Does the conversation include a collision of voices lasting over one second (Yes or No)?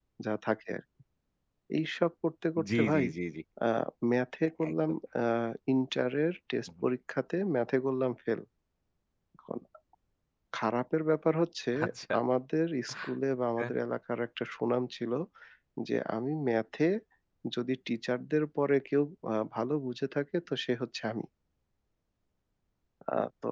No